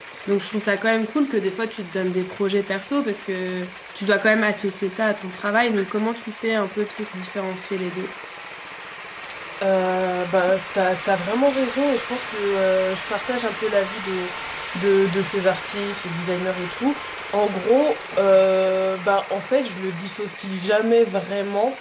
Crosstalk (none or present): none